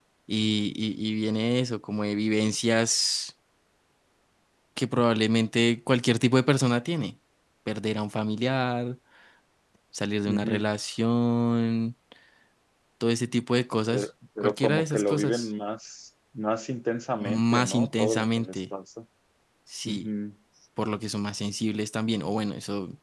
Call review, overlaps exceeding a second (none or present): present